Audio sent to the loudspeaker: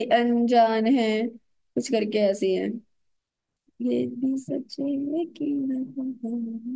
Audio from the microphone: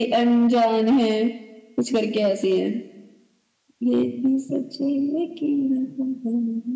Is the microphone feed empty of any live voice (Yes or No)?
Yes